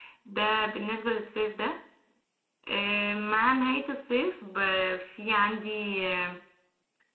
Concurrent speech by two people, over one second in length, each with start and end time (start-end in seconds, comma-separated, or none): none